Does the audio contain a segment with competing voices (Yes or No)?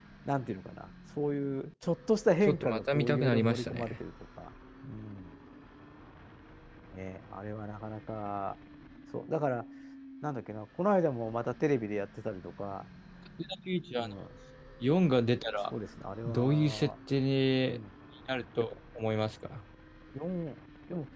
Yes